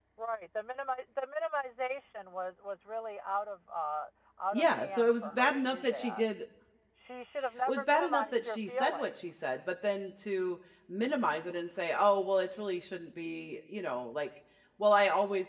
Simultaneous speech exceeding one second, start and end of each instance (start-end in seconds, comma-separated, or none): 4.5-6.3, 7.7-9.3